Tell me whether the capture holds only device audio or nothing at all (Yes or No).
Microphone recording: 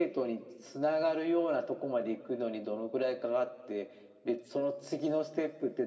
Yes